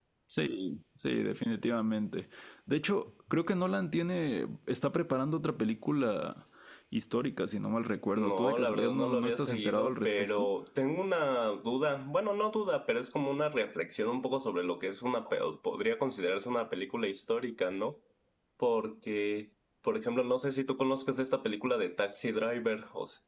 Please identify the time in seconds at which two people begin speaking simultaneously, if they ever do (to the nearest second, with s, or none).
8 s